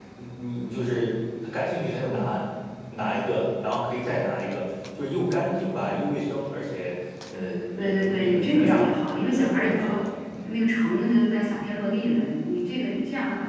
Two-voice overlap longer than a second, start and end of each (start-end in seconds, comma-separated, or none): 7.8-10.0